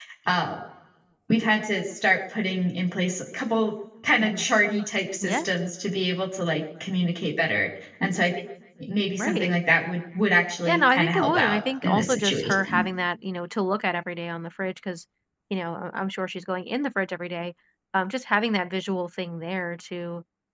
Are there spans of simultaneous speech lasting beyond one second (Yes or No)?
Yes